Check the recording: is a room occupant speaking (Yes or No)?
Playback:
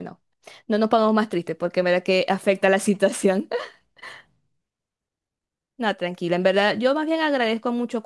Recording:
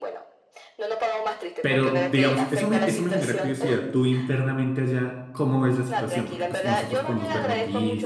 Yes